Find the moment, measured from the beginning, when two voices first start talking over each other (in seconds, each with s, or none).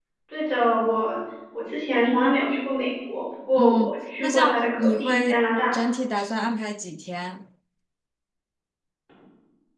3.6 s